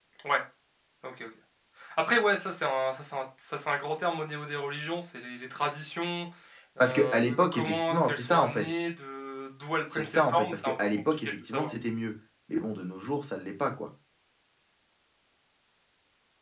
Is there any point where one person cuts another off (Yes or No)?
Yes